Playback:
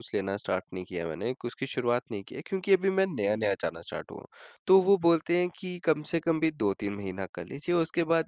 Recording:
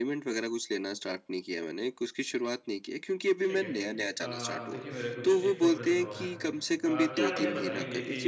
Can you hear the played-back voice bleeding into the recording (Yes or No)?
Yes